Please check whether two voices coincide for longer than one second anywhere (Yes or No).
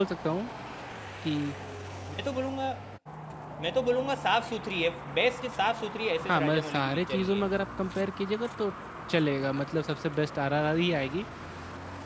Yes